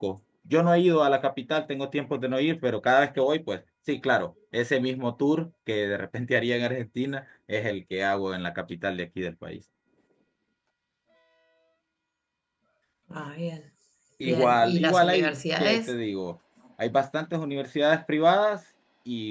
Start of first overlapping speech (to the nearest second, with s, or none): 14 s